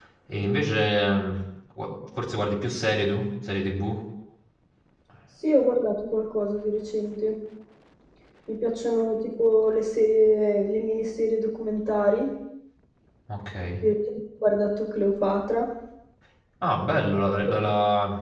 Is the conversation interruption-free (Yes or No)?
Yes